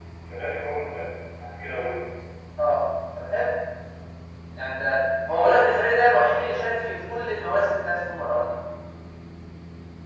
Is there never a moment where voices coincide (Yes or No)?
Yes